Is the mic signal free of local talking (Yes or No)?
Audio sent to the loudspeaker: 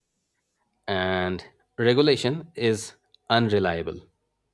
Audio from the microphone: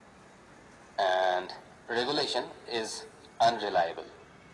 Yes